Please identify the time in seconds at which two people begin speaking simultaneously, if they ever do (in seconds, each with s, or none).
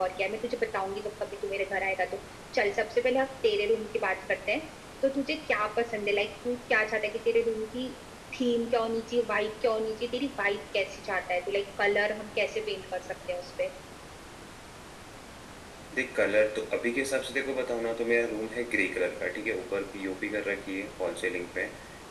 none